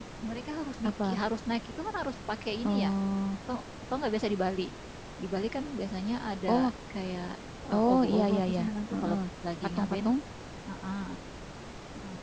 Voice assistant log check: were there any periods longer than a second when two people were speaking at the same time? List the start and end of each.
7.7-9.2

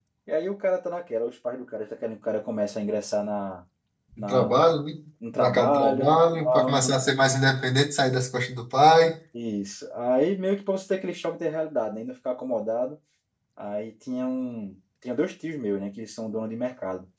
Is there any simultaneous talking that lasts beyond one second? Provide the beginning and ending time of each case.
5.3-6.9

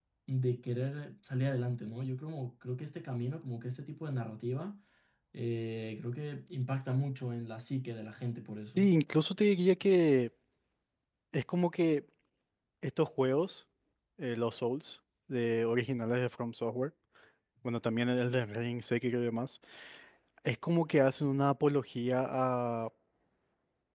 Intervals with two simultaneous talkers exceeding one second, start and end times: none

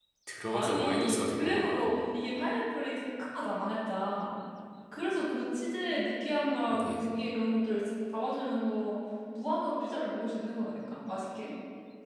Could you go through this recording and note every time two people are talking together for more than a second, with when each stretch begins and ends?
0.5-1.9

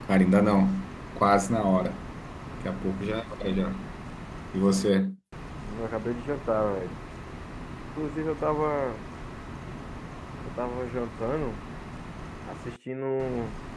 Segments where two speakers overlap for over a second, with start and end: none

